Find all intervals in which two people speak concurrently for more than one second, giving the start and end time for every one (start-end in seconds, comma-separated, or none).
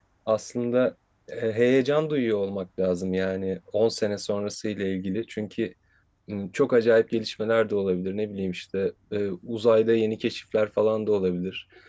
none